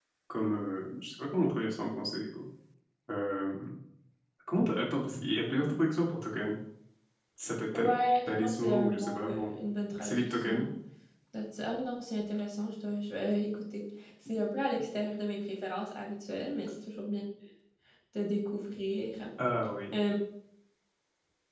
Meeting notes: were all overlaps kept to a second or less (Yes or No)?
No